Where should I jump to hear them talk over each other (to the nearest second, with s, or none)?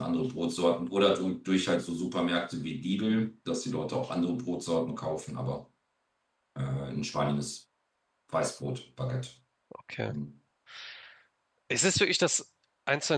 none